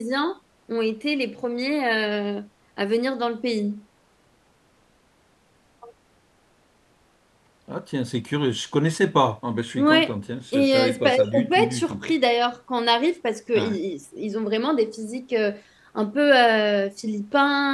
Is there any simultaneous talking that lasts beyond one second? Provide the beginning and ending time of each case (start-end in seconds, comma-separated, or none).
10.5-12.0